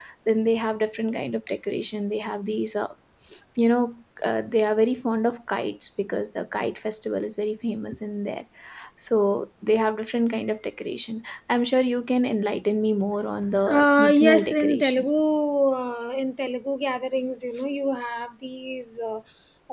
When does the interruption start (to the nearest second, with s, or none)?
14 s